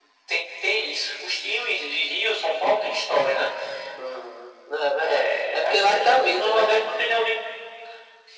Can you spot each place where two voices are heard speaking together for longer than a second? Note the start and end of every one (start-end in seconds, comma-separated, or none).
5.0-6.7